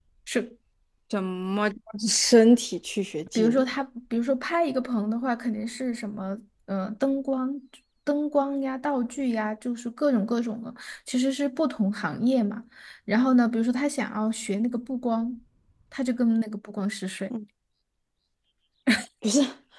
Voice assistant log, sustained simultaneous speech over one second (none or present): none